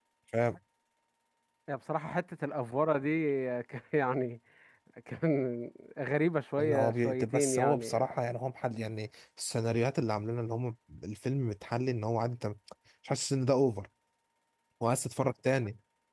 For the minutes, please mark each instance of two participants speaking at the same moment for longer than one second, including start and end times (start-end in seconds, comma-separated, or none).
6.6-8.0